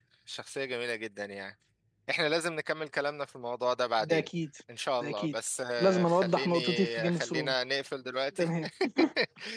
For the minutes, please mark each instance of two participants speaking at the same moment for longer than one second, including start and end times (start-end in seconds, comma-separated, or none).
5.8-7.5